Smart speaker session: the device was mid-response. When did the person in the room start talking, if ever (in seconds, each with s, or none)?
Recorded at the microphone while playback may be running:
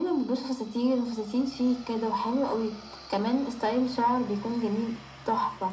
none